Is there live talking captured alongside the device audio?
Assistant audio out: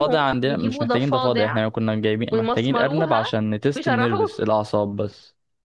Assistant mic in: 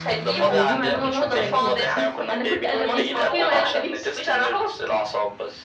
Yes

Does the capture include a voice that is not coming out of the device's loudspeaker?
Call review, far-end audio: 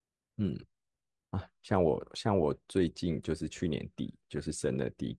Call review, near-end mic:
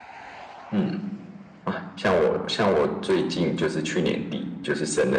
No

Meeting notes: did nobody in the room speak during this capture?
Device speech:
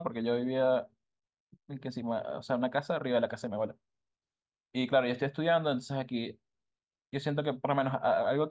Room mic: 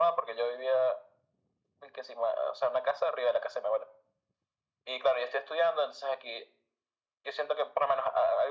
Yes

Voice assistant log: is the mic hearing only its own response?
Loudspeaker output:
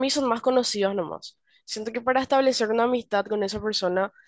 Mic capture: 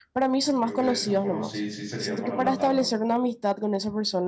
No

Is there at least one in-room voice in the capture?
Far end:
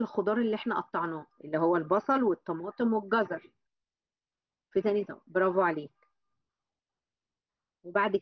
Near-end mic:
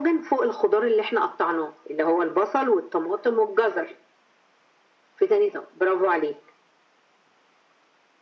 No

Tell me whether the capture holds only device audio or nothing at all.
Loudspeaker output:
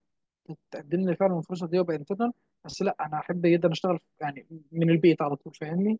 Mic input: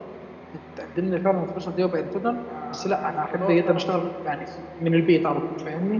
No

